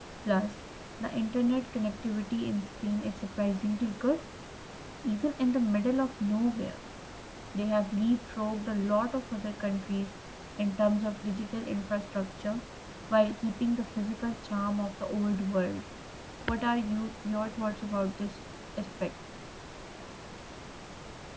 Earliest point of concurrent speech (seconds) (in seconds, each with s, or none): none